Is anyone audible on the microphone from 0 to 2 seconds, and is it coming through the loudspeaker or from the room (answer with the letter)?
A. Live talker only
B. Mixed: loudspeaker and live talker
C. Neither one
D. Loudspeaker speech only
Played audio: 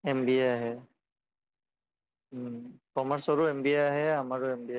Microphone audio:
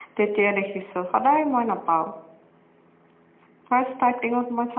A